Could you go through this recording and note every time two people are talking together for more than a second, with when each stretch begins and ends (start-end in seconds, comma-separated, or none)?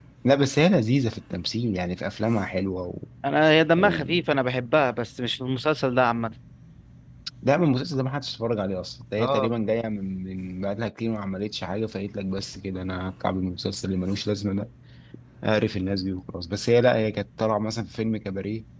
none